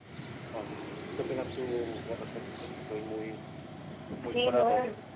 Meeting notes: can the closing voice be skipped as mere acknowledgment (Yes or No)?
No